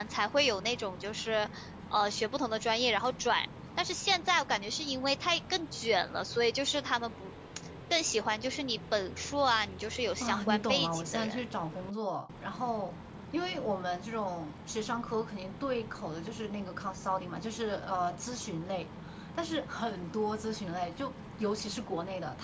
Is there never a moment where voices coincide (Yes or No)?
No